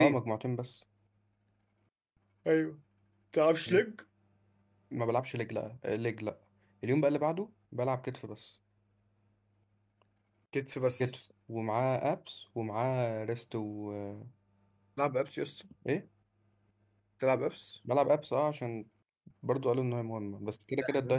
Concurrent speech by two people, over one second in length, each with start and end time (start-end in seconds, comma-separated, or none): none